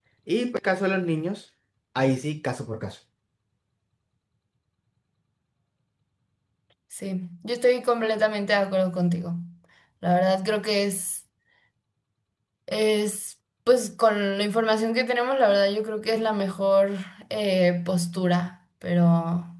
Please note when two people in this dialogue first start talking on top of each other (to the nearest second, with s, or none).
none